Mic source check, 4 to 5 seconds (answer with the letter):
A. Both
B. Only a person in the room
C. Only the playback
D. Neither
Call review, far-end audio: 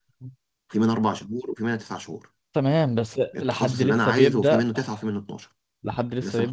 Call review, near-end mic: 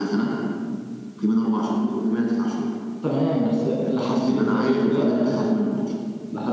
C